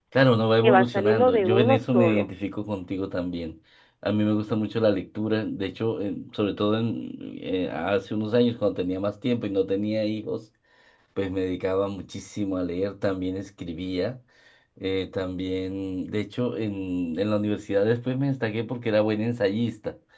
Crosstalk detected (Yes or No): Yes